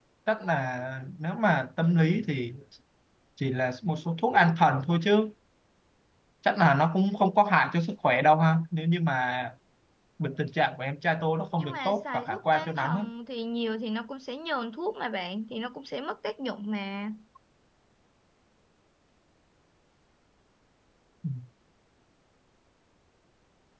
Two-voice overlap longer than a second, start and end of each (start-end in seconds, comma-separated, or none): 11.6-13.0